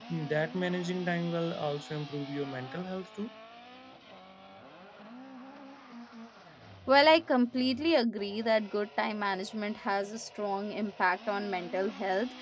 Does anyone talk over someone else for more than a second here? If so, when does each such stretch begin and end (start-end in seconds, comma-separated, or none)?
none